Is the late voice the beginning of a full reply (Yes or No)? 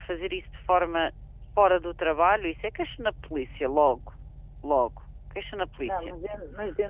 Yes